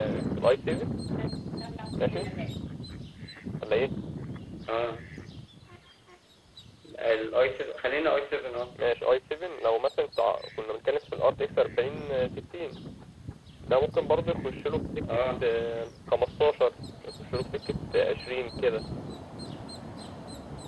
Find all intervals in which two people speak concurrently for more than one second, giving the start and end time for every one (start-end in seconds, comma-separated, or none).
none